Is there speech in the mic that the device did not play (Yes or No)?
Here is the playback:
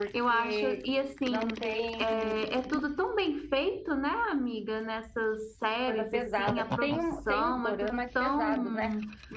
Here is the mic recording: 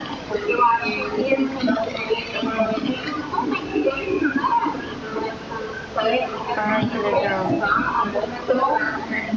Yes